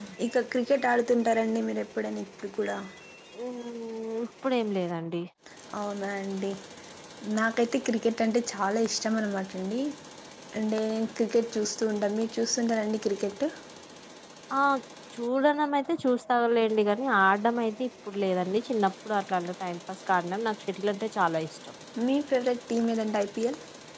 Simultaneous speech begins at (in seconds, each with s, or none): none